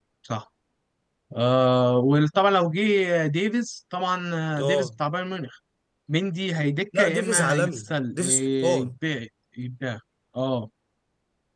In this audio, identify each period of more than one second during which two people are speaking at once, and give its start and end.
7.0-8.9

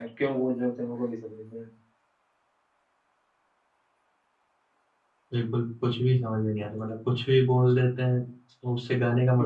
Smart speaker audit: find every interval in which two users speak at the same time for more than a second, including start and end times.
none

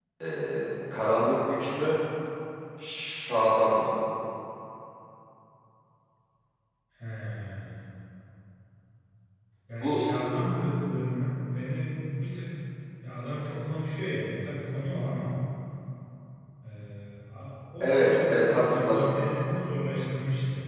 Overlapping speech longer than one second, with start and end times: 17.8-19.1

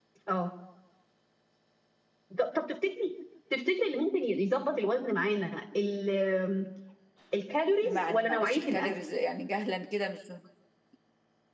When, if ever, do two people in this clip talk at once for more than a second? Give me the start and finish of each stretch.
7.8-8.9

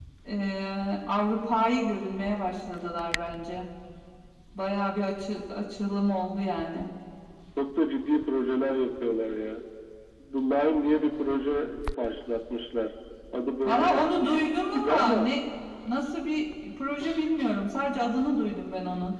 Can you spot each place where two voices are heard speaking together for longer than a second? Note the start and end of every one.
13.6-15.3

